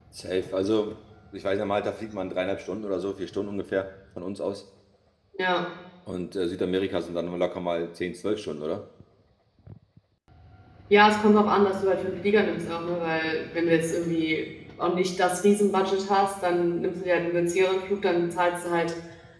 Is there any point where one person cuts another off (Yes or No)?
No